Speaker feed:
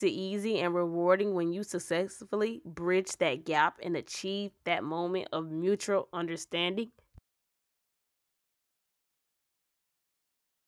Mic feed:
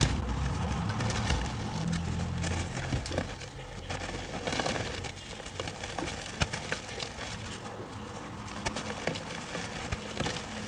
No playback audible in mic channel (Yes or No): Yes